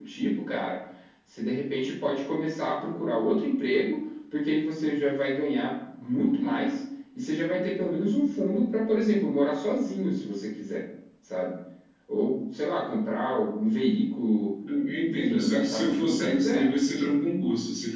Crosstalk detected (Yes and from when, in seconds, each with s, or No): Yes, from 15.0 s